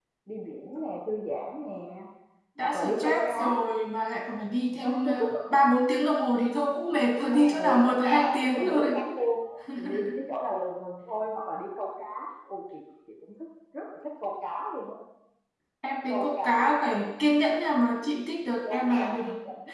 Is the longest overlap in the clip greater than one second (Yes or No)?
Yes